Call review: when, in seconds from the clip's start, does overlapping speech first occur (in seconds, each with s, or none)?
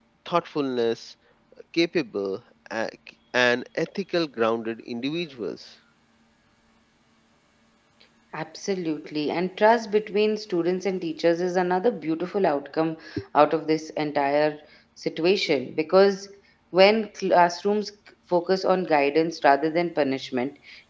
none